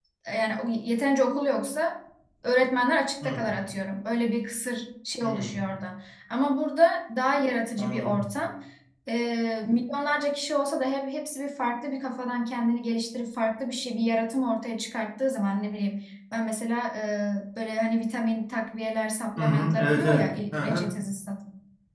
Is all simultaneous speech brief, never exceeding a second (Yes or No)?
No